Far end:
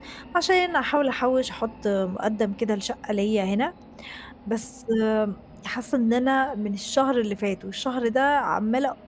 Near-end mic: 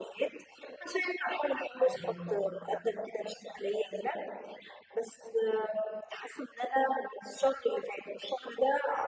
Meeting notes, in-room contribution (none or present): present